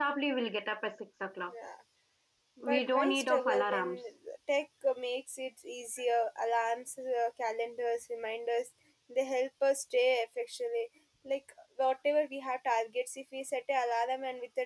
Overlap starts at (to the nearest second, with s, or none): 3 s